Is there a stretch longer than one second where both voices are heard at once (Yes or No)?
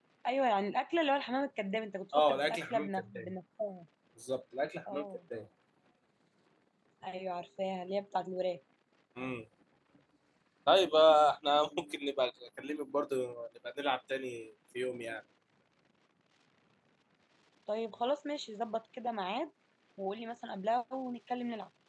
Yes